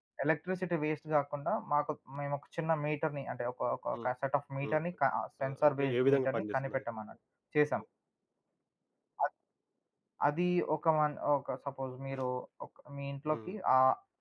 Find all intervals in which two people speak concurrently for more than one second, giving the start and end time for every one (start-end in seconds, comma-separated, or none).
5.4-6.8